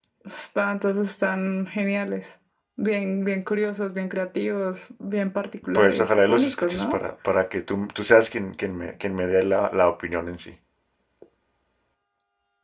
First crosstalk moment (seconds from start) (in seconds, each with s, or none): 5.7 s